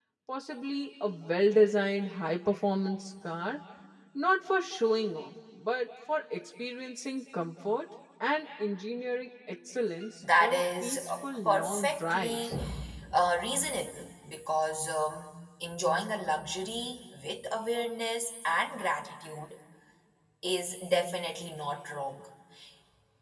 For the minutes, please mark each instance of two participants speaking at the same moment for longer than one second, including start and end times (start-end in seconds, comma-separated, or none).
10.4-12.5